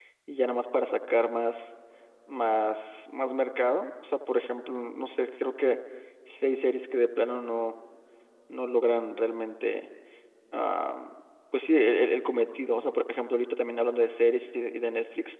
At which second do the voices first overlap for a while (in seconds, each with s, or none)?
none